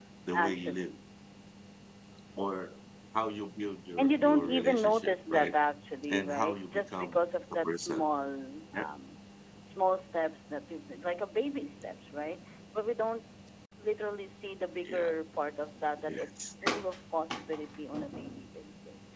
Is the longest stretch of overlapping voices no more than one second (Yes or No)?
No